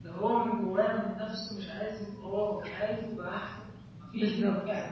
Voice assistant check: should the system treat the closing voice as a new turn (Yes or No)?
No